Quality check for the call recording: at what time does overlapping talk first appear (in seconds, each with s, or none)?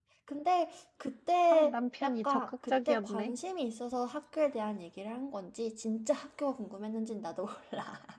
1.5 s